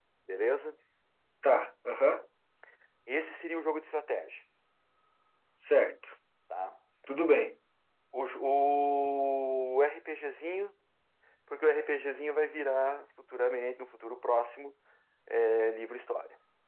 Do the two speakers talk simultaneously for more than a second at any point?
No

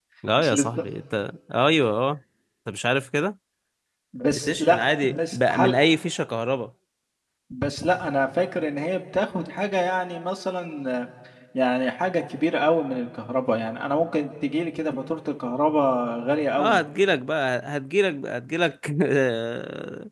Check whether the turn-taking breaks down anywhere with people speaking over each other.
Yes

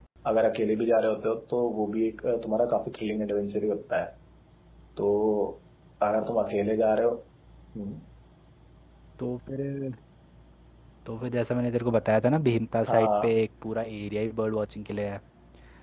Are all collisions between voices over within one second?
Yes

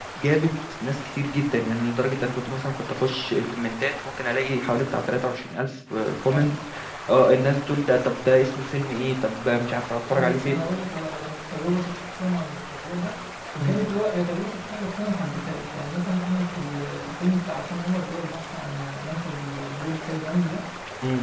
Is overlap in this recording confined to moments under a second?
Yes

